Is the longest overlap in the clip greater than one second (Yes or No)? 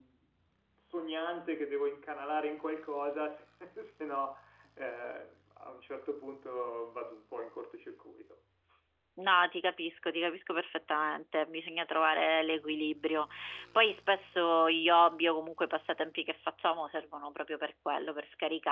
No